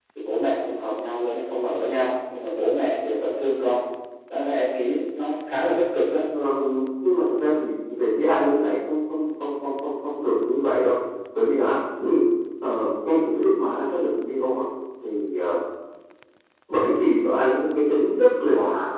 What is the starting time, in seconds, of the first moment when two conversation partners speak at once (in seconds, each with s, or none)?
none